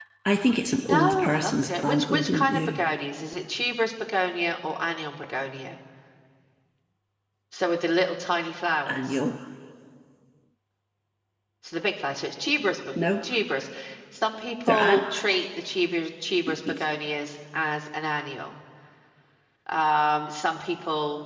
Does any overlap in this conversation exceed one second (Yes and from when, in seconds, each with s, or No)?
Yes, from 0.8 s